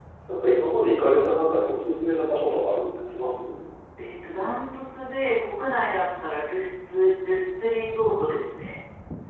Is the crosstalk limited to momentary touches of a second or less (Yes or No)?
Yes